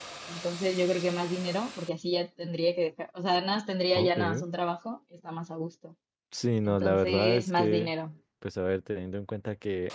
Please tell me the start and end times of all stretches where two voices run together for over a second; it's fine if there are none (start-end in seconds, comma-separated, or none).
6.7-7.9